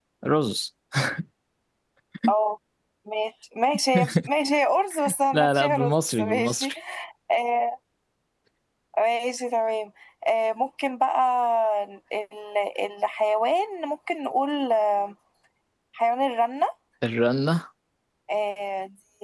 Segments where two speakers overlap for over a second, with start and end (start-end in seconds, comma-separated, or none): 5.3-6.7